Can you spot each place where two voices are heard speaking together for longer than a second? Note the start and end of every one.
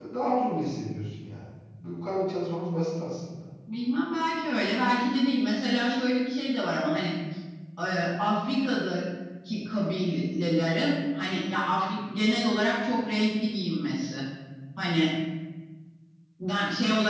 none

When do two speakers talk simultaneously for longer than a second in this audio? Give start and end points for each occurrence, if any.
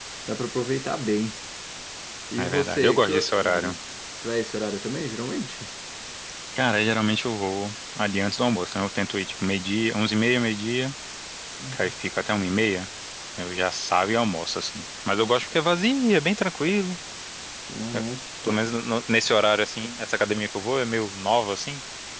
2.4-3.8

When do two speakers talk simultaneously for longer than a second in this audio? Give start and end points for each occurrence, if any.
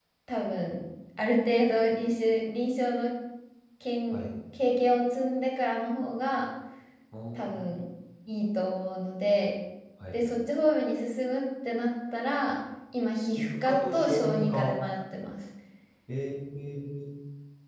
13.4-14.7

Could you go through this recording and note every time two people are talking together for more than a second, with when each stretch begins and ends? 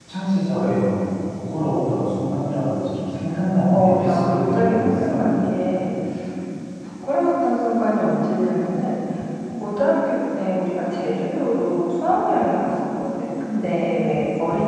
3.7-5.2

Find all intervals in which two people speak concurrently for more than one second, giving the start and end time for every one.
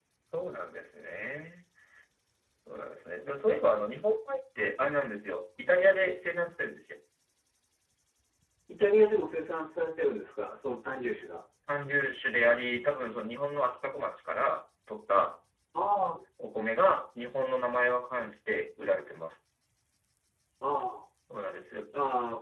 none

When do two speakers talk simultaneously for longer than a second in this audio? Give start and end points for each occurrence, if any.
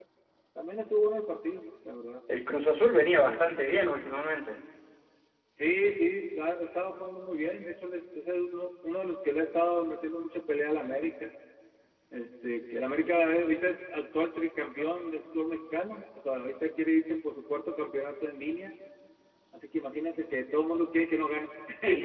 none

